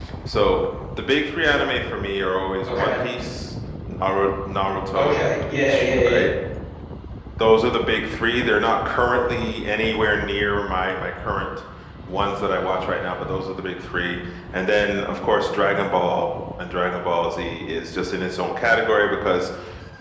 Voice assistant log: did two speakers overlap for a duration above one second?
Yes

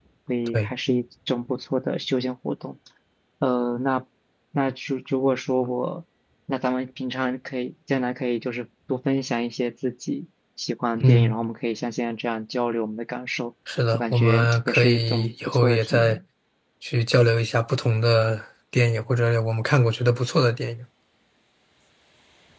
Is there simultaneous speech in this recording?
Yes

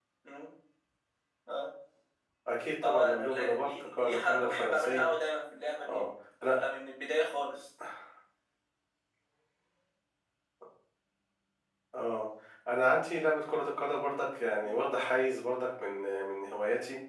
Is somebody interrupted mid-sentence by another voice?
Yes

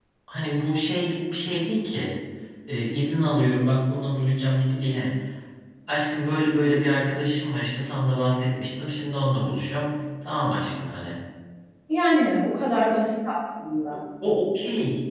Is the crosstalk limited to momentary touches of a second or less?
Yes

